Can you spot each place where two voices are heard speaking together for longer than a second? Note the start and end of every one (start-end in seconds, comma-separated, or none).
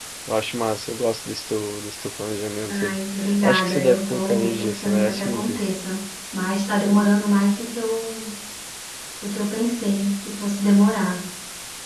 3.4-5.7